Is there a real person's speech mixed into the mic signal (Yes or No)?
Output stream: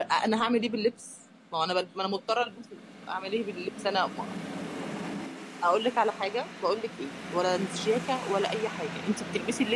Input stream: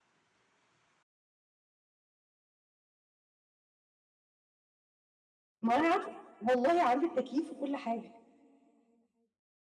Yes